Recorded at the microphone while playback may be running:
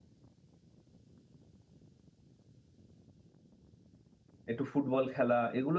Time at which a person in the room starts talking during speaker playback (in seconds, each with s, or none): 4.5 s